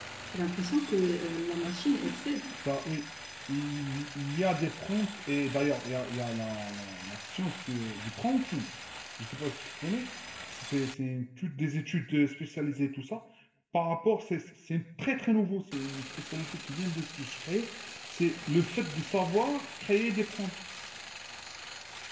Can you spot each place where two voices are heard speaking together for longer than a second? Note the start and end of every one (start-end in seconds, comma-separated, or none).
none